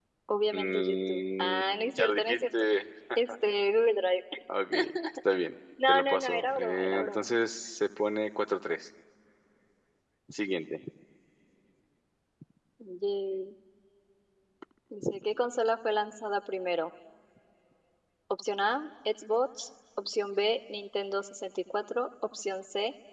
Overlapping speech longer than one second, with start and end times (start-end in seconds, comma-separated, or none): 0.5-2.4, 5.9-7.3